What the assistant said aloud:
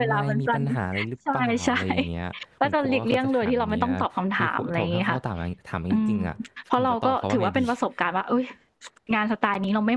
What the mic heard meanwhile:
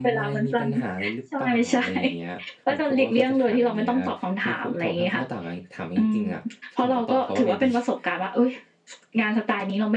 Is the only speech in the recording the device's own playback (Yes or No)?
Yes